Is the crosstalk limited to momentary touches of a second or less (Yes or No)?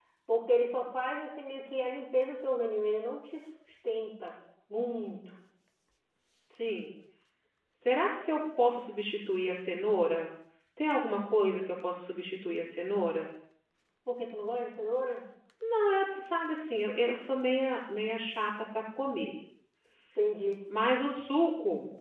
Yes